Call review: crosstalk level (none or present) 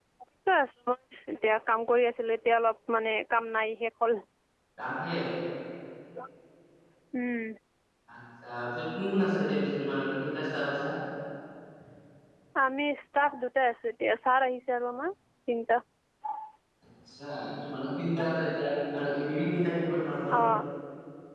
none